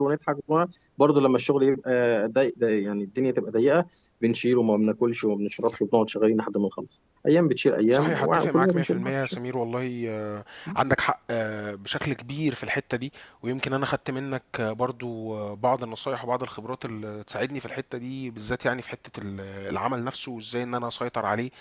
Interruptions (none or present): present